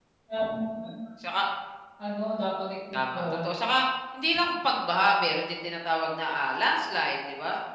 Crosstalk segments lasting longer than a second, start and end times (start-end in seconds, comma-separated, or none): none